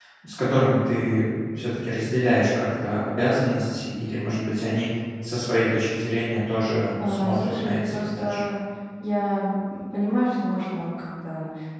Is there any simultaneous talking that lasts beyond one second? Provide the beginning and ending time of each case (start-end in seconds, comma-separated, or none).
7.0-8.4